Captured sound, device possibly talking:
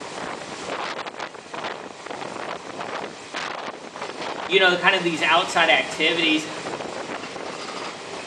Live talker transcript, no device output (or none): you know, kind of these outside activities